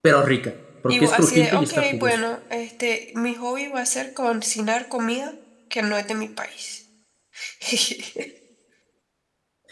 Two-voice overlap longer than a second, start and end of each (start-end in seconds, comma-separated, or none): 0.9-2.2